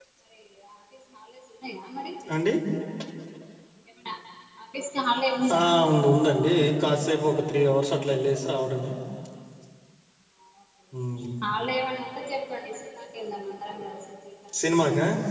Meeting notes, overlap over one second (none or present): none